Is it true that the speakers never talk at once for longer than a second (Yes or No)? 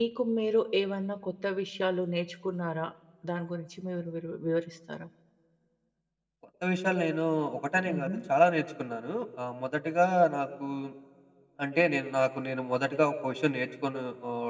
Yes